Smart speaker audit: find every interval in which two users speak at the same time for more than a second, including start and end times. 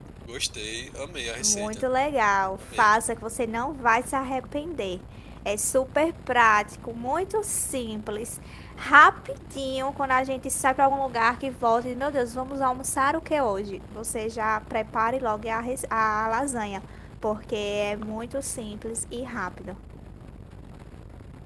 none

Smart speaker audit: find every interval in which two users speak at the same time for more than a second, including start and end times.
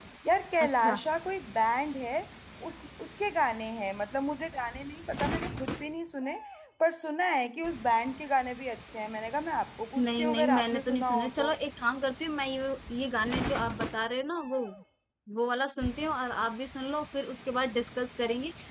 10.0-11.5

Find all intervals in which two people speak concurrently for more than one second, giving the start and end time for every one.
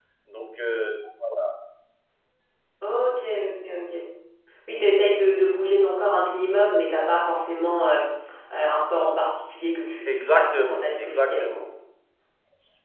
10.1-11.4

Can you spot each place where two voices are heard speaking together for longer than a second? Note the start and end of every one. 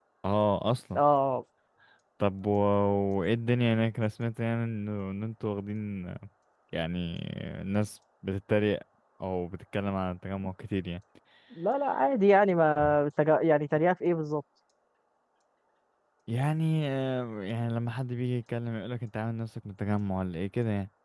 none

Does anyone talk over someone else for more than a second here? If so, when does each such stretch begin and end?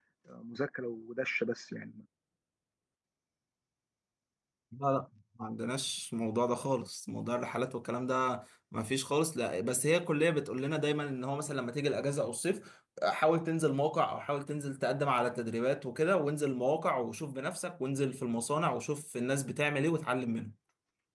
none

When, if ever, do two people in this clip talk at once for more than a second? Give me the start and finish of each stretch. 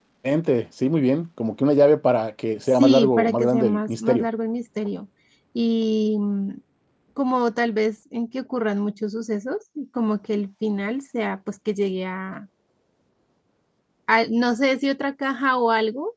2.8-4.3

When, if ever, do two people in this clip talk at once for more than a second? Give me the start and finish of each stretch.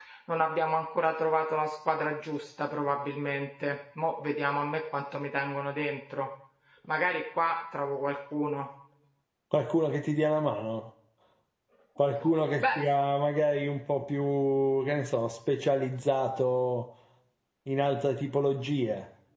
none

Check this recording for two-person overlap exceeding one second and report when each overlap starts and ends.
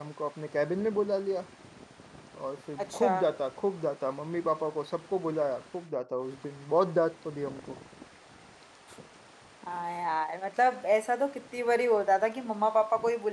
none

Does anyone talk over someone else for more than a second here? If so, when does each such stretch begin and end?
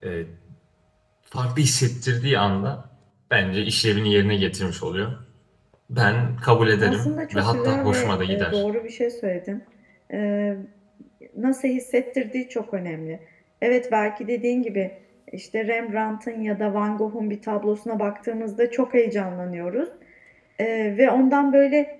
6.8-8.6

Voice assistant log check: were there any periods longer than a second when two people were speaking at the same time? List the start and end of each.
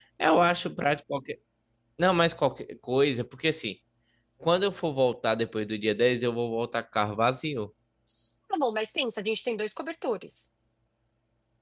none

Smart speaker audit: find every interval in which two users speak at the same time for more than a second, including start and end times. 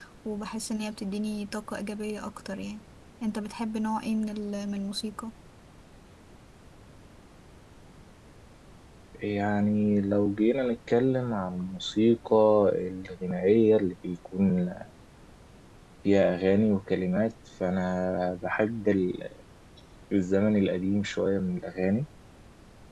none

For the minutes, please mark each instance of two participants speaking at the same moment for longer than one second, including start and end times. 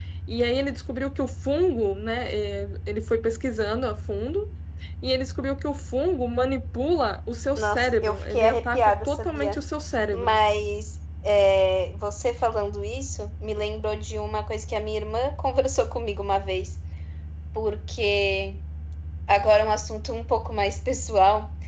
7.6-9.6

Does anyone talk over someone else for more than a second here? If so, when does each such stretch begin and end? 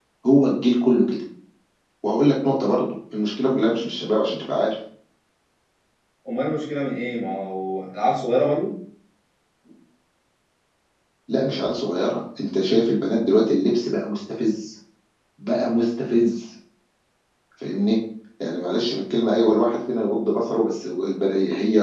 none

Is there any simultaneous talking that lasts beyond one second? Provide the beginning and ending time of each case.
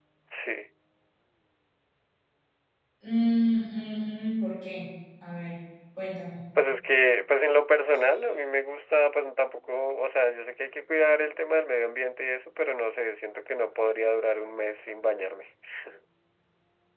none

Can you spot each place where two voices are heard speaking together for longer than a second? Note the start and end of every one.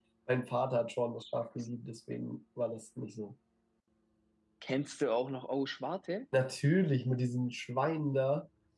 none

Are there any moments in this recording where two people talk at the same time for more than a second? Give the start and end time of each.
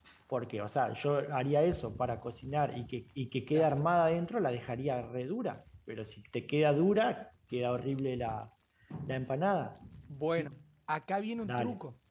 none

